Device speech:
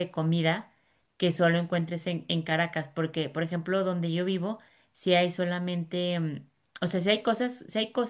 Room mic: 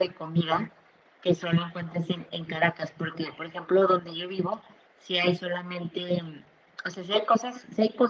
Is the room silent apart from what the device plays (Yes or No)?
Yes